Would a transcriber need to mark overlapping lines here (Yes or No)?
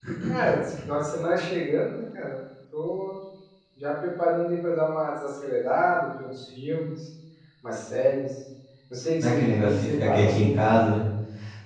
Yes